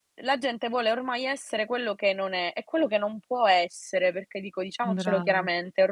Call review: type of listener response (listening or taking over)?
listening